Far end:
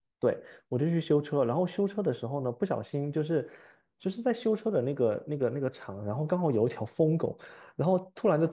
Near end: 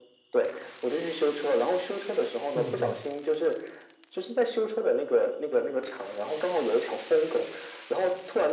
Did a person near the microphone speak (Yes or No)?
Yes